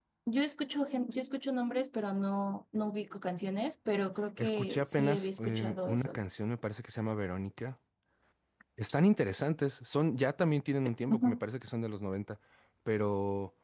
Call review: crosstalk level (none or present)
present